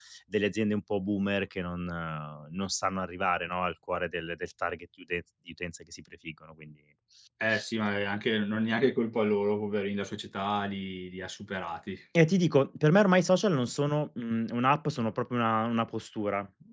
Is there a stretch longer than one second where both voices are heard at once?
No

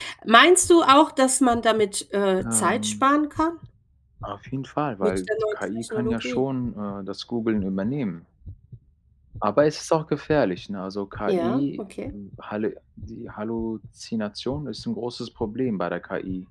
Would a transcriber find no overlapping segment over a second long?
No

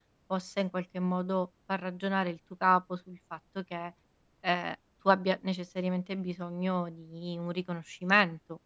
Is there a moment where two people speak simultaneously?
No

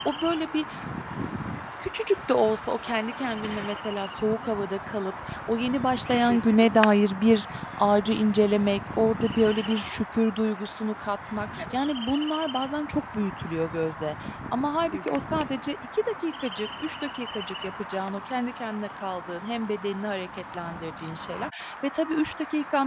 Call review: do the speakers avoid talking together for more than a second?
Yes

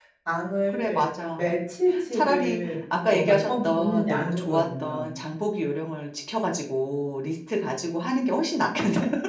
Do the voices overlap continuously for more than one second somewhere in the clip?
Yes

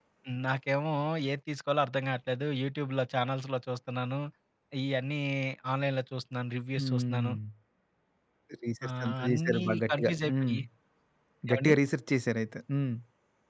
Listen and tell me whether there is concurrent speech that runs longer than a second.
Yes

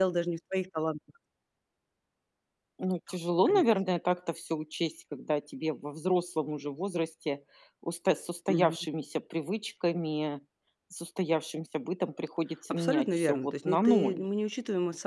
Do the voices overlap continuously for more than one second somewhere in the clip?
Yes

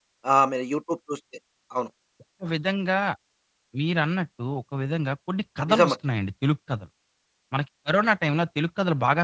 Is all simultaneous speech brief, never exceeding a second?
Yes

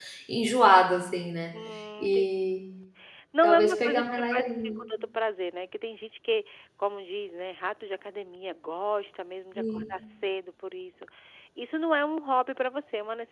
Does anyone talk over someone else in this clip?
Yes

